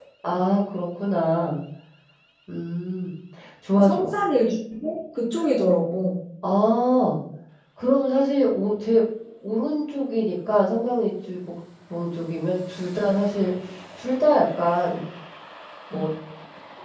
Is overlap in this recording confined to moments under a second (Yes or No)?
Yes